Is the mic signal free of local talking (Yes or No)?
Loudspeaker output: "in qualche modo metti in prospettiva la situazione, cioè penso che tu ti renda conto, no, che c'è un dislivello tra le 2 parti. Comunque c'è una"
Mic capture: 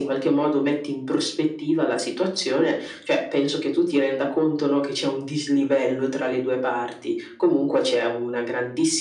Yes